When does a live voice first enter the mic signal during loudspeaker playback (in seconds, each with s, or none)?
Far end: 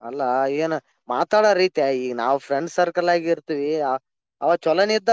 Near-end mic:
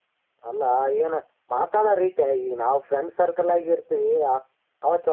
none